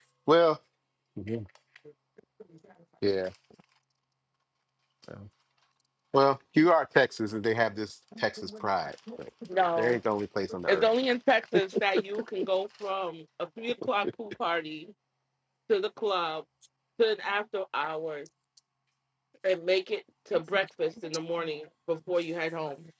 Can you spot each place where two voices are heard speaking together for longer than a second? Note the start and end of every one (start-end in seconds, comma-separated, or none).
none